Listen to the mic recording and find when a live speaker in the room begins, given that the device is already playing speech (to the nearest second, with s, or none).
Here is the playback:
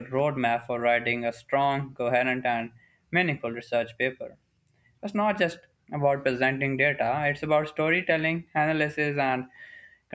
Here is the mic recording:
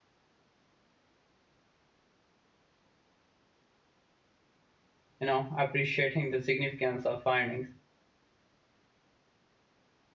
5 s